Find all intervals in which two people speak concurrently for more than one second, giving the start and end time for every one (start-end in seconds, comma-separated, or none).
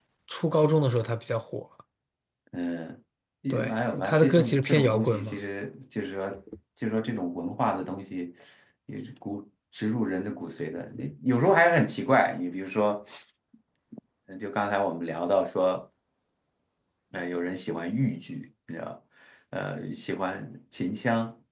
3.5-5.4